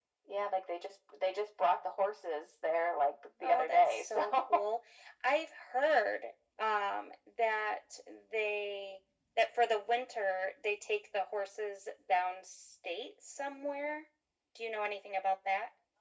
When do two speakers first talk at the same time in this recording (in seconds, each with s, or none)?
3.4 s